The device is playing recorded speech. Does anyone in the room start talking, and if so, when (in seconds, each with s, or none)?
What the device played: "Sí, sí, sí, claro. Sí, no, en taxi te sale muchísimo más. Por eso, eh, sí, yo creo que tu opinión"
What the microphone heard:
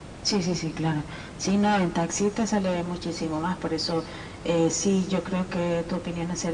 none